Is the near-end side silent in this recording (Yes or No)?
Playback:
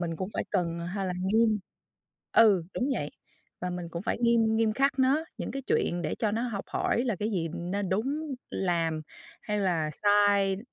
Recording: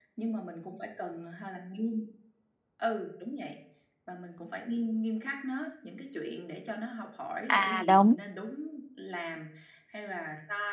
No